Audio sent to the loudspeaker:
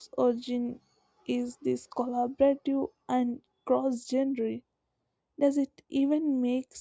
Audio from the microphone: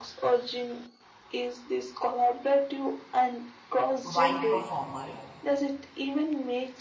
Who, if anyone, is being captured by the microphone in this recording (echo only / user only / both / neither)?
both